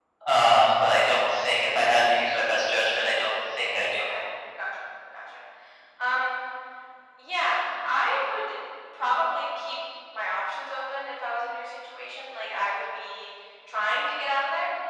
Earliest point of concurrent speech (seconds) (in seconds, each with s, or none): none